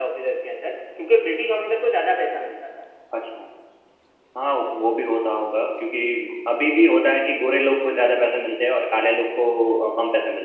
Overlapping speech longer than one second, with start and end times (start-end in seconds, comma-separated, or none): none